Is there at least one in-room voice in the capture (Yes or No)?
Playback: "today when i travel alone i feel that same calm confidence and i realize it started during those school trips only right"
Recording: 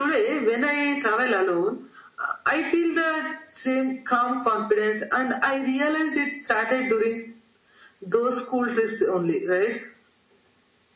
No